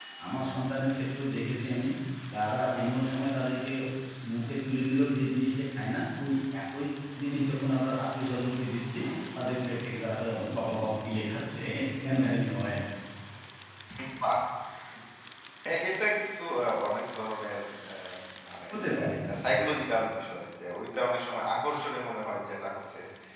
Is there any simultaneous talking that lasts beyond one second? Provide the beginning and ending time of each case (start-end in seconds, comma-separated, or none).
none